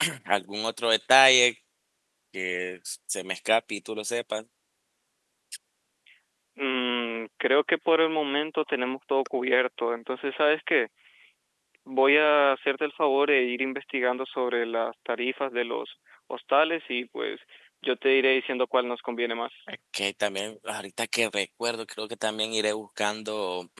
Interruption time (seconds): none

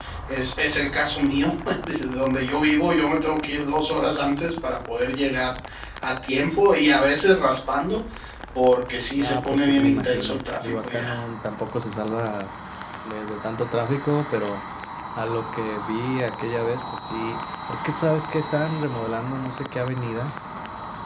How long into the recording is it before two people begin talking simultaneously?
9.2 s

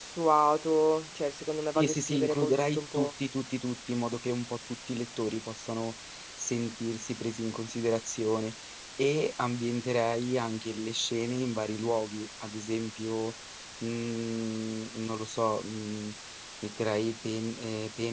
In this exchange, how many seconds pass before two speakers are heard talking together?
1.8 s

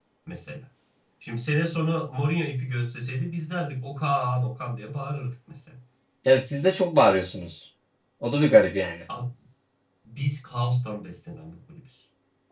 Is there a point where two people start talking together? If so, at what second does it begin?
none

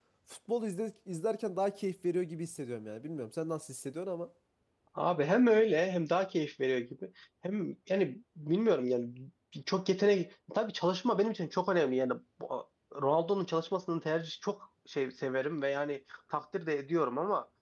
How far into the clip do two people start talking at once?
none

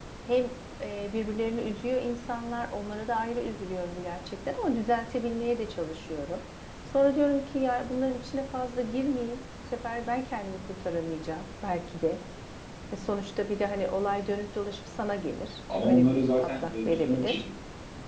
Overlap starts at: 15.7 s

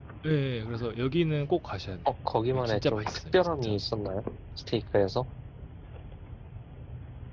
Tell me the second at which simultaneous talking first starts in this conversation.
2.5 s

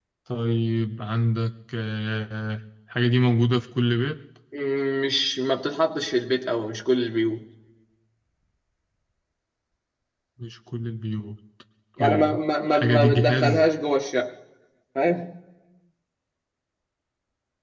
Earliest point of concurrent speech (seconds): 12.0 s

